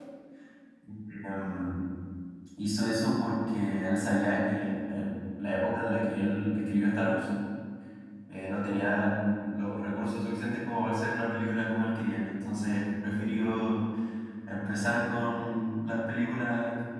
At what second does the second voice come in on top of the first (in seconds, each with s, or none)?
none